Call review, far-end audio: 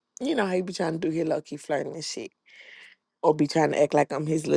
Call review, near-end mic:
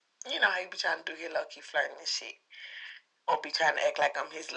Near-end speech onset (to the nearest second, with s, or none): none